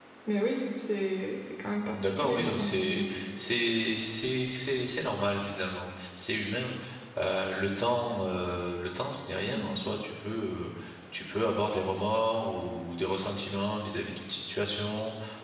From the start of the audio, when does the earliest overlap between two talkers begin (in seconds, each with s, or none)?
1.9 s